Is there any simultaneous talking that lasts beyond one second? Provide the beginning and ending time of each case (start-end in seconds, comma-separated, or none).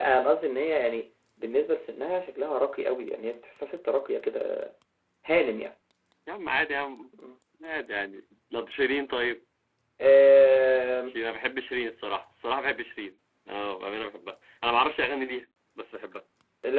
none